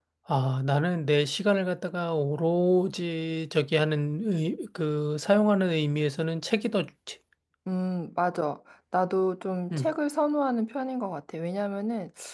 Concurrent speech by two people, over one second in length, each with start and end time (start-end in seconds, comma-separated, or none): none